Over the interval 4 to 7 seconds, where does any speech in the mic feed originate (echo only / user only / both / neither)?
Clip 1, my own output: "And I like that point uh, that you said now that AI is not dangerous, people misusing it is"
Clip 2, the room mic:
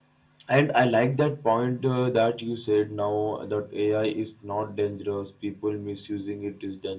echo only